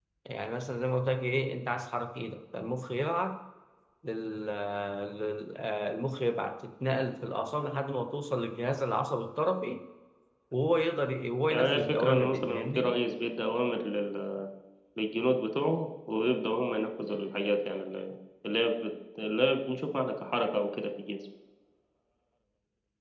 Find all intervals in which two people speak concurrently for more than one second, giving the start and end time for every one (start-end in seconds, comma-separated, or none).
11.5-12.9